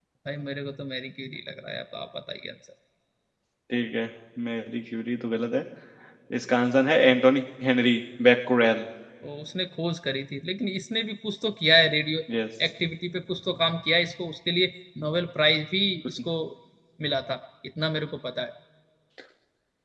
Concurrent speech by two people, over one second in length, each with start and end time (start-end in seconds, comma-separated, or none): none